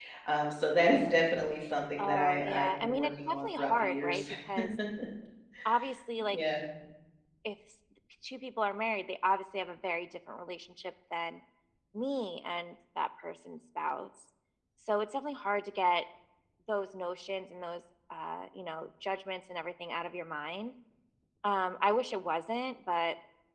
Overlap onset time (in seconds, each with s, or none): 2.0 s